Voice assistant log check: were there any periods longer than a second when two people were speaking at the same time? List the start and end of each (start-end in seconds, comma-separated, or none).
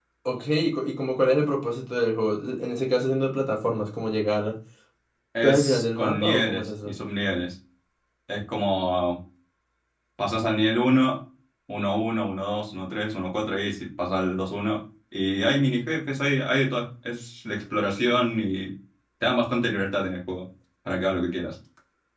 5.4-7.0